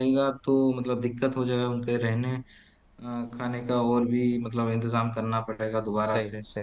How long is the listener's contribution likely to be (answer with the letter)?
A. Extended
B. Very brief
A